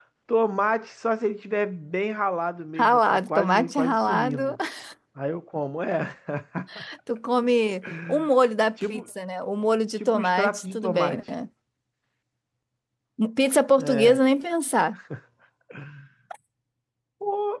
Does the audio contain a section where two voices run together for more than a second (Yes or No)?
Yes